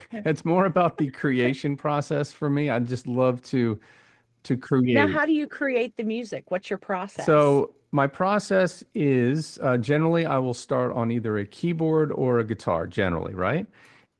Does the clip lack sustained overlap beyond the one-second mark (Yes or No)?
Yes